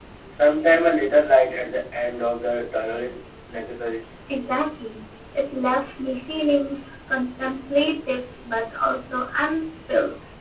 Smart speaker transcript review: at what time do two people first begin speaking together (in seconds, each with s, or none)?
none